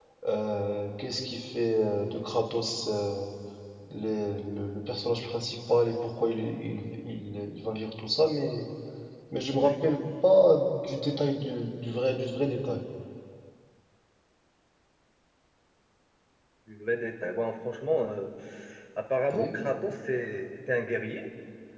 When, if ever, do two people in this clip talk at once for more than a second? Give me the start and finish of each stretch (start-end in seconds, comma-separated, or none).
none